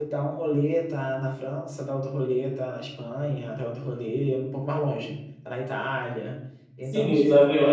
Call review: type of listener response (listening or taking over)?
taking over